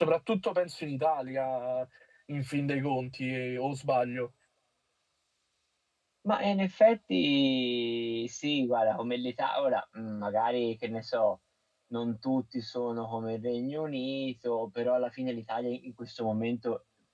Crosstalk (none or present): none